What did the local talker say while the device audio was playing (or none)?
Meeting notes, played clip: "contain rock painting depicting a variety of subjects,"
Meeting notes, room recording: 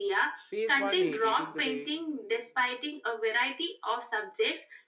Phase 1a, dating to the